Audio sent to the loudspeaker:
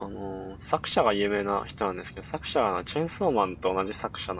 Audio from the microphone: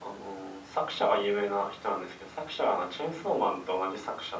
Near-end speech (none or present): none